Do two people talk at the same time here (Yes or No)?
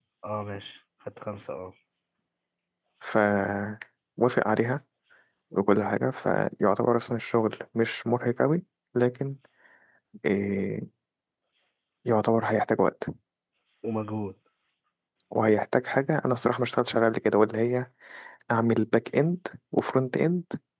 No